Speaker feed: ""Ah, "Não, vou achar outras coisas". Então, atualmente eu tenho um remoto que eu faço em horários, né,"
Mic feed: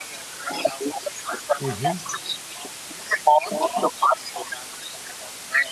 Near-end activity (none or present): present